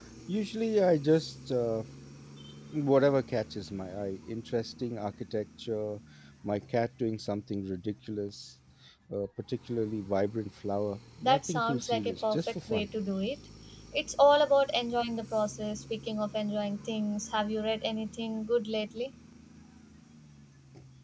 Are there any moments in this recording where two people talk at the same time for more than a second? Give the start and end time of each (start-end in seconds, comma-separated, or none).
11.2-12.9